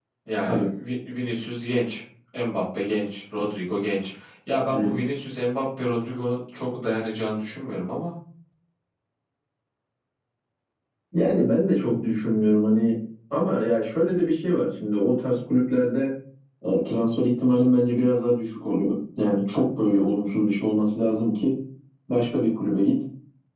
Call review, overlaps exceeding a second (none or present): none